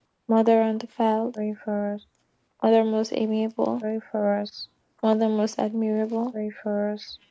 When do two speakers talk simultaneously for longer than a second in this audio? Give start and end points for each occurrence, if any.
none

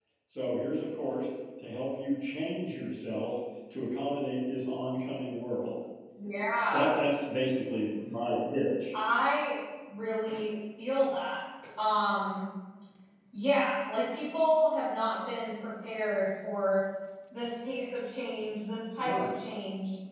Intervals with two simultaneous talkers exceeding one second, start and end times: none

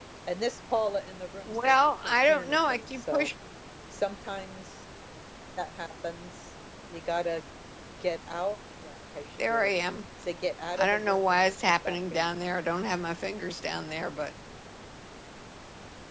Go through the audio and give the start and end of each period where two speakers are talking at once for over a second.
1.5-3.3, 10.7-12.4

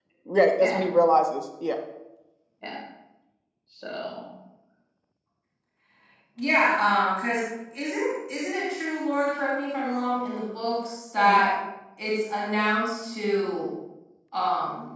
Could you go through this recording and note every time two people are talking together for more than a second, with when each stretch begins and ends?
none

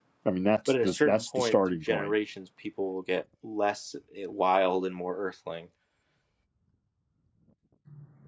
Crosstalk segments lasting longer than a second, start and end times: 0.7-2.1

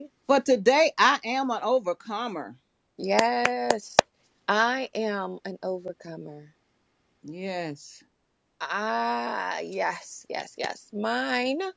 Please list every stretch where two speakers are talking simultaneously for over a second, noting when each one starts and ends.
none

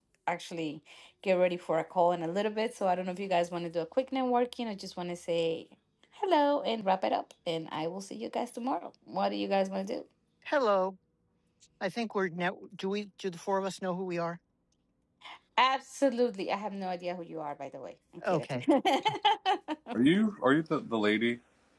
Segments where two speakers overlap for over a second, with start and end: none

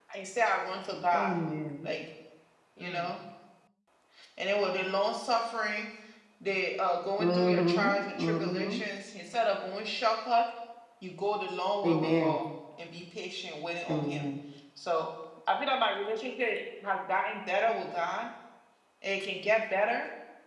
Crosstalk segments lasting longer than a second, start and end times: 7.2-8.8

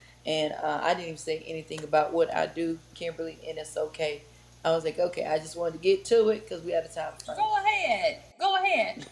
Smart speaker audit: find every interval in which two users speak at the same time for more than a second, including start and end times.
none

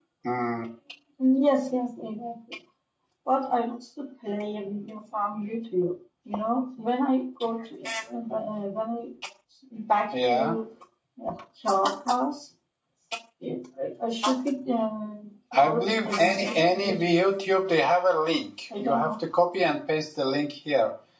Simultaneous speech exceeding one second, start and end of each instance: 15.5-17.3

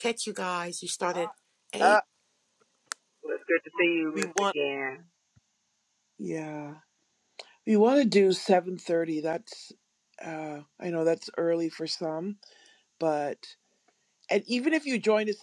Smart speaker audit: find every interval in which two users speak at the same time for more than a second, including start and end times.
none

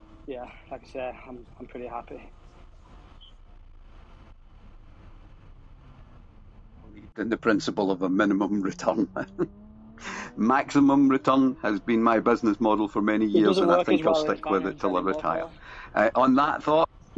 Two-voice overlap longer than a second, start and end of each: 13.3-15.4

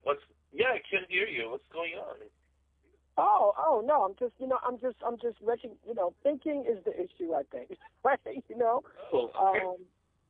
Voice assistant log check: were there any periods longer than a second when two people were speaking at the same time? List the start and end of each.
none

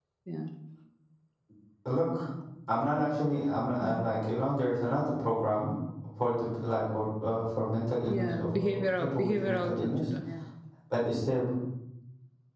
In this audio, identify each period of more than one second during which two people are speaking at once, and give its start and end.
8.1-10.1

